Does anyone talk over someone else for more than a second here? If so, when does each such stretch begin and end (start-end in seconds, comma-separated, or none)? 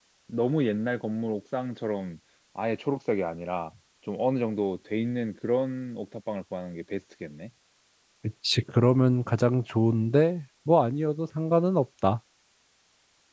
none